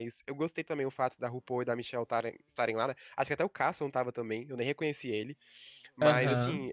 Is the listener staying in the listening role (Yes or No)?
Yes